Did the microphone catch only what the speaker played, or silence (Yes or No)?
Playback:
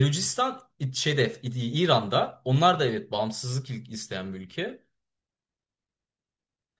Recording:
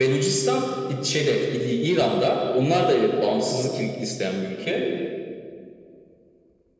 Yes